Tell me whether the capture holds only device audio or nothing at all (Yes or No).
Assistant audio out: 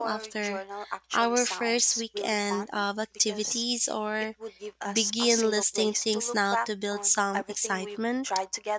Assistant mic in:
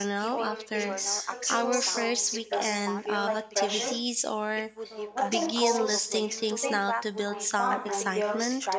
No